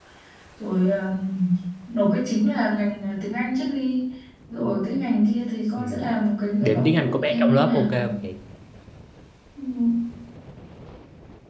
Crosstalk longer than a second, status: present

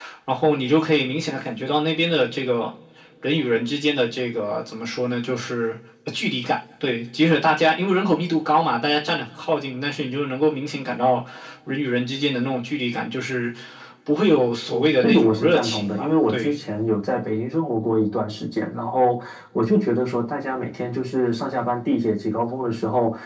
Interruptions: present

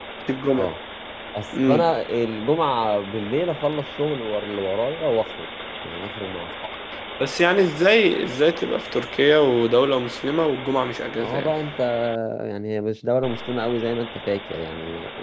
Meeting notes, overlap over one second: none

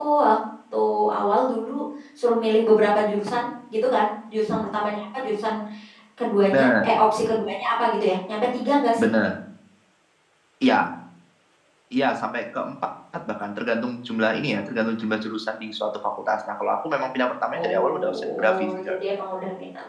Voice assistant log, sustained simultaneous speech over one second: present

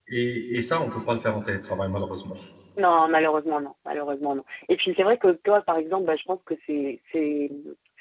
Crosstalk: none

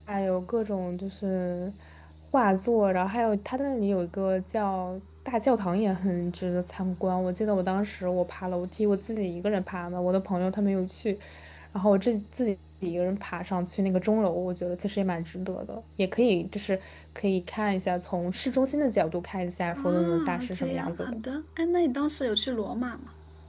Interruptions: present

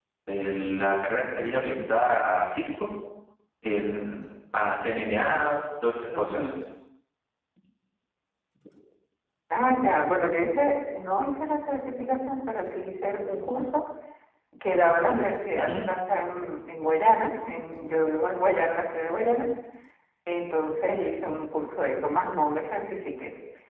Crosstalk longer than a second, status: none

